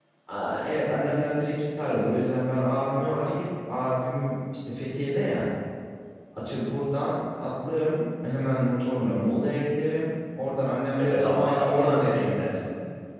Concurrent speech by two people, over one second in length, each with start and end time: 11.0-12.3

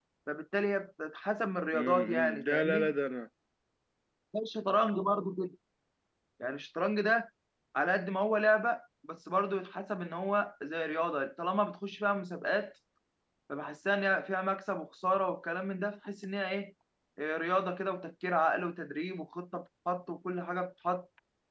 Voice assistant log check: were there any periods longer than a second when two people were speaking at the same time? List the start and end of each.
1.7-2.9

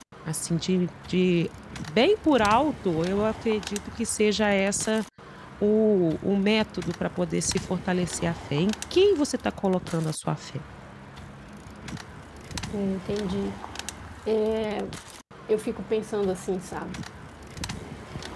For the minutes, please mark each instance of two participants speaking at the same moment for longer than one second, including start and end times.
none

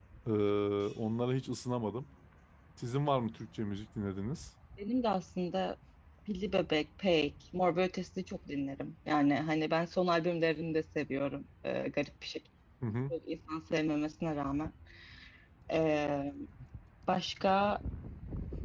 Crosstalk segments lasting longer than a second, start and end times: none

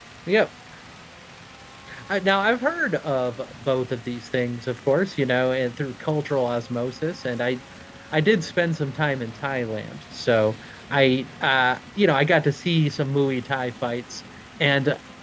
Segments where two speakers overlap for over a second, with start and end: none

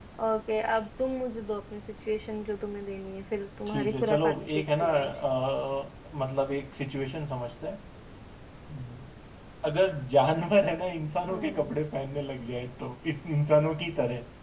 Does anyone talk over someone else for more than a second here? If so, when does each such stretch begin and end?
3.7-5.1

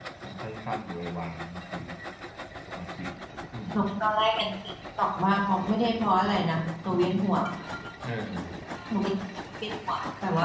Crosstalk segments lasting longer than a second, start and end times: none

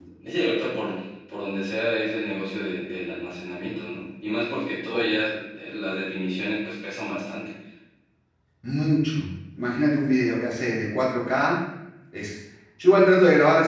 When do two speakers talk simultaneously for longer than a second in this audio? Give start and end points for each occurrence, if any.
none

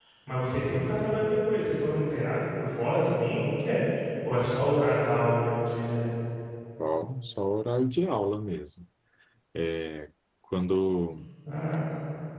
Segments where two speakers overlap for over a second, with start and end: none

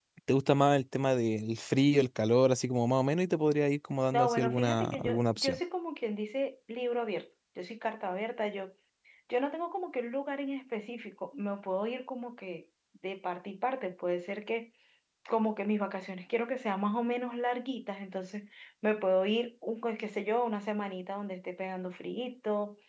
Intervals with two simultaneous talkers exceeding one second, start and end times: 4.1-5.6

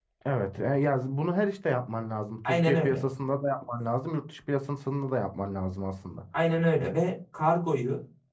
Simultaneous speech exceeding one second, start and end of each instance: none

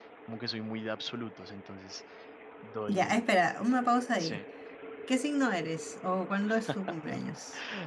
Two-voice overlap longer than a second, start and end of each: none

